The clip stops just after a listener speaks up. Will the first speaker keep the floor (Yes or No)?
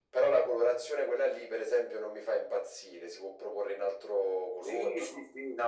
No